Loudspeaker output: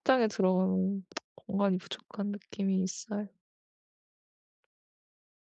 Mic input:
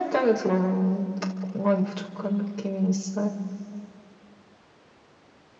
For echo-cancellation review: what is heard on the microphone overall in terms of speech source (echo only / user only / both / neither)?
echo only